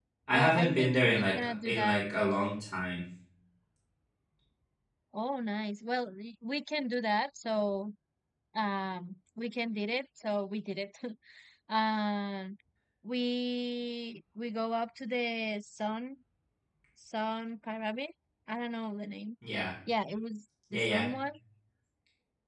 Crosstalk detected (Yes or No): Yes